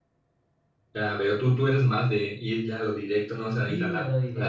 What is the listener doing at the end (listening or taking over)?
taking over